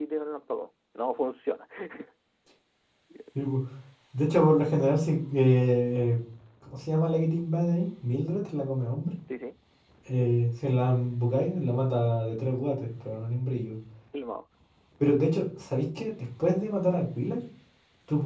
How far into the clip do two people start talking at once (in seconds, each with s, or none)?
none